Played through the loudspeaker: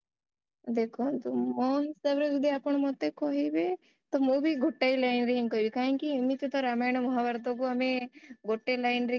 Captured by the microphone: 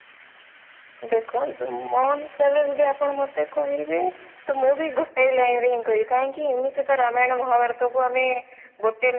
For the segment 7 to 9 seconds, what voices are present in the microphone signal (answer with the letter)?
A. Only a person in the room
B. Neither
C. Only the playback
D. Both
C